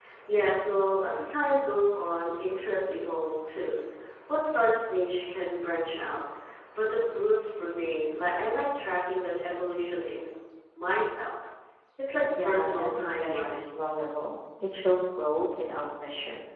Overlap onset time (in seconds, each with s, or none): 12.4 s